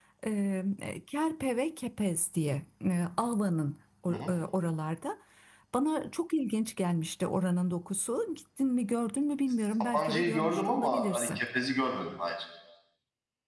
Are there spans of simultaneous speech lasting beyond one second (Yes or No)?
Yes